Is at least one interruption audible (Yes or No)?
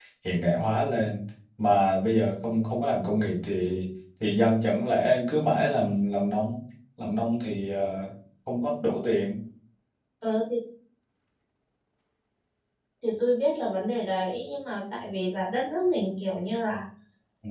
No